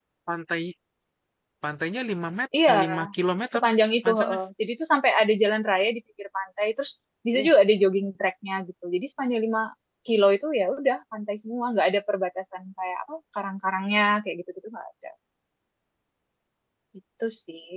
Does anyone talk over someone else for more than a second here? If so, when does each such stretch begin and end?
none

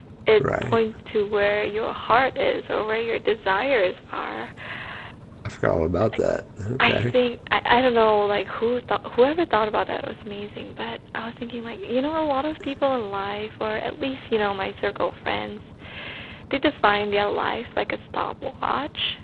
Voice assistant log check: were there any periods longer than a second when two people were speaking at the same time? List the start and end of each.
none

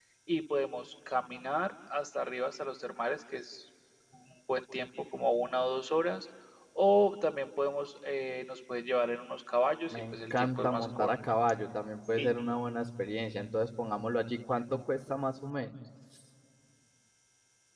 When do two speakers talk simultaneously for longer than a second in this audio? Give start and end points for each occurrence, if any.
9.9-11.1

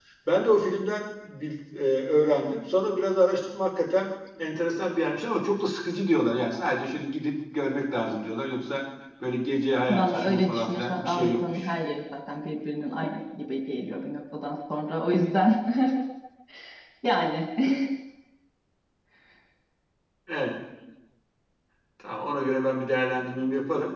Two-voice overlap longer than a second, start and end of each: 9.9-11.7

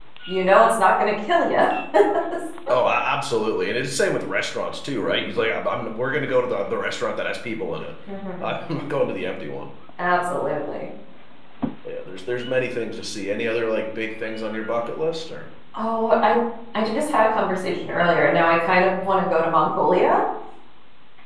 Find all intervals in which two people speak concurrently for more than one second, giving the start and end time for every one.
none

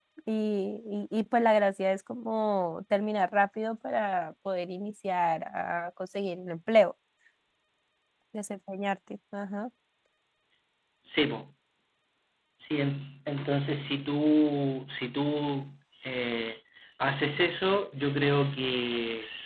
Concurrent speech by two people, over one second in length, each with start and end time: none

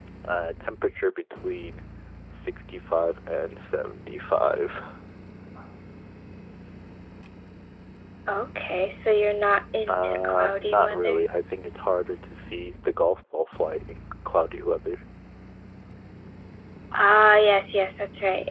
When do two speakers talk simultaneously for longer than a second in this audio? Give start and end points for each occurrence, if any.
9.9-11.2

